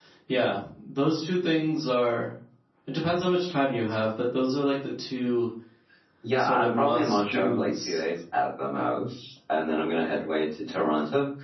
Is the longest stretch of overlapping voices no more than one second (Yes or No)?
No